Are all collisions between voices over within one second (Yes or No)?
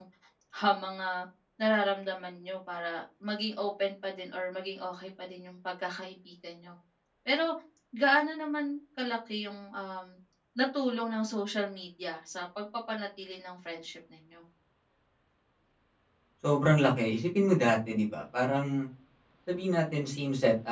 Yes